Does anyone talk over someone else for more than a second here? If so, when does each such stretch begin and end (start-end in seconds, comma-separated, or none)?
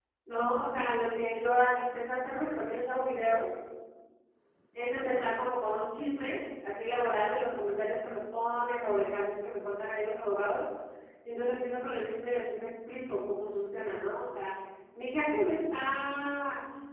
none